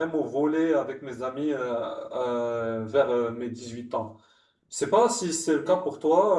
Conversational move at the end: listening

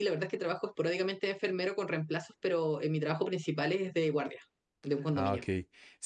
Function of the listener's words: taking over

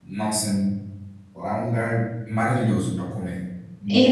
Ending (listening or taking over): taking over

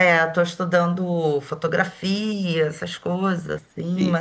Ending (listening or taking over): listening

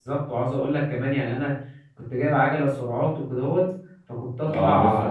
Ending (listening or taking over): listening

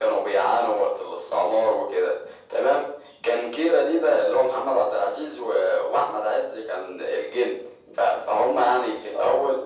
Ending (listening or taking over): listening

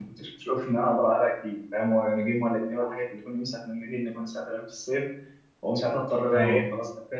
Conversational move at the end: listening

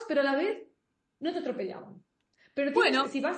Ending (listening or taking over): listening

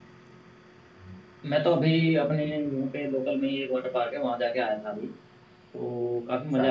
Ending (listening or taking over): listening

